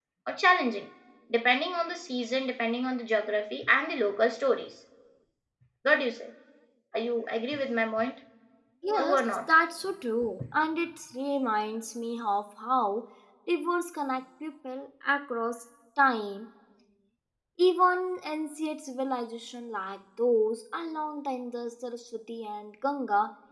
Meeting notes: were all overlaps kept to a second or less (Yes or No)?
Yes